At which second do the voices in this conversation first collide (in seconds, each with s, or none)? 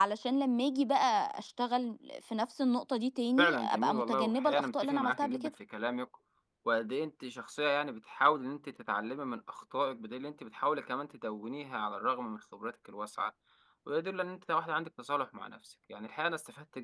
3.4 s